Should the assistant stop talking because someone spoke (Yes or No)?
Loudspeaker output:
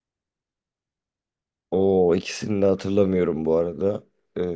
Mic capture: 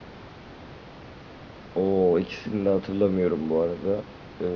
No